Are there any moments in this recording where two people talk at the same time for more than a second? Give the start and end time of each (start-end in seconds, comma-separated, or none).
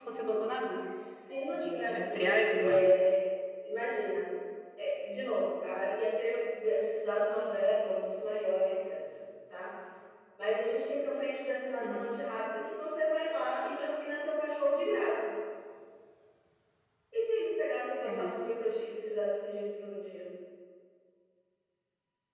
1.5-2.9